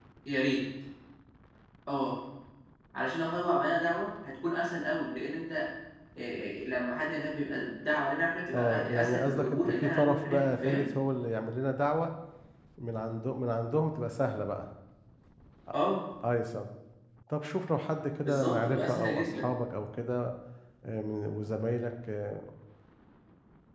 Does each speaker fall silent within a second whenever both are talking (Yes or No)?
No